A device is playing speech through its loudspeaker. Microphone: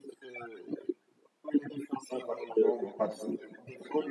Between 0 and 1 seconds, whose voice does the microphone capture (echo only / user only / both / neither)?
echo only